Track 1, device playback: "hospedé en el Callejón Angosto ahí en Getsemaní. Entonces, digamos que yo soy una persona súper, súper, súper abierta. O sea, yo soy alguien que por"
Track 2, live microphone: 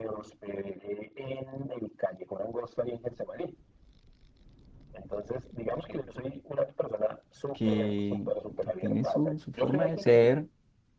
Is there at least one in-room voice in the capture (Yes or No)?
Yes